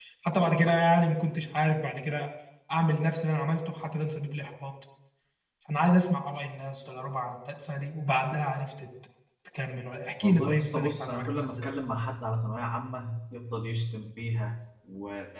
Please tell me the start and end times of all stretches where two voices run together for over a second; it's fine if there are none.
10.2-11.7

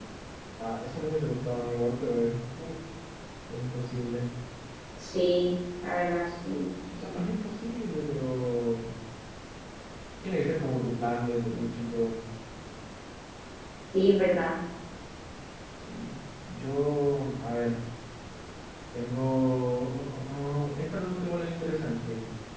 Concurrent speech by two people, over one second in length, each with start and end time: none

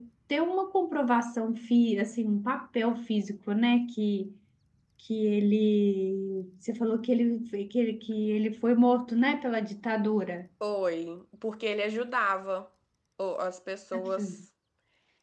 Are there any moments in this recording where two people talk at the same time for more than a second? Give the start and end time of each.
none

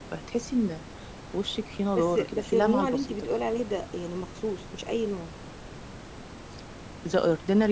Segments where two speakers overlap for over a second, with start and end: 1.9-3.3

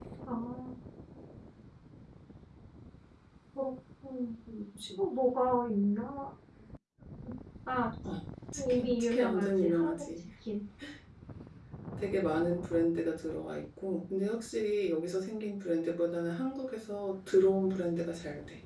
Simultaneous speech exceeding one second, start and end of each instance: 8.7-10.0

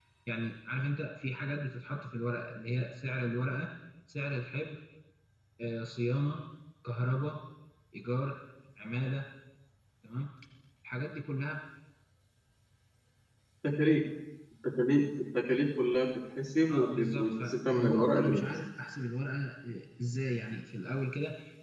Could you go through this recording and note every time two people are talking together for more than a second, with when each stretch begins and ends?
16.7-18.5

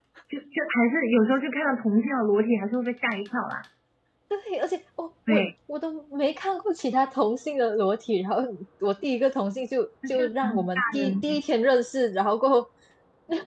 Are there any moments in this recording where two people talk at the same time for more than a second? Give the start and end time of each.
10.1-11.4

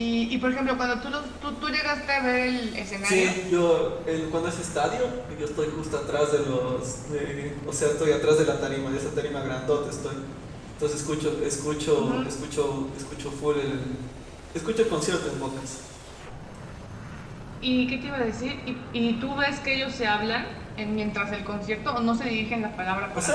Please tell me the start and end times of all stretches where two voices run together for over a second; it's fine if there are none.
none

